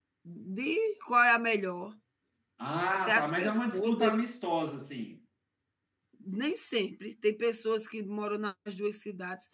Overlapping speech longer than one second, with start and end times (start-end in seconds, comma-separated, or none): 2.9-4.3